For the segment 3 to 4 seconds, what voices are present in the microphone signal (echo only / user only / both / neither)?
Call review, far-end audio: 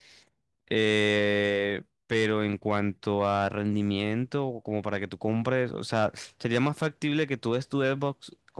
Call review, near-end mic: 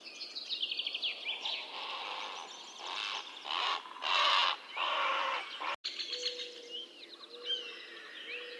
neither